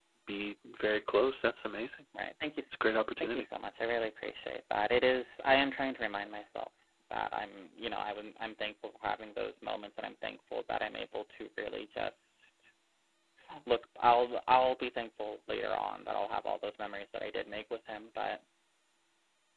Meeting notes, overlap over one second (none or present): none